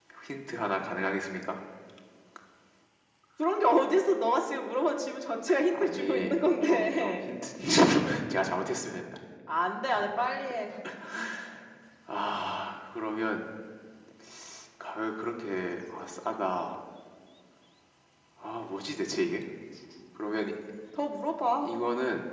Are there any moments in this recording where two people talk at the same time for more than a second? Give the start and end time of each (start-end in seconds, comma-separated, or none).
5.7-7.3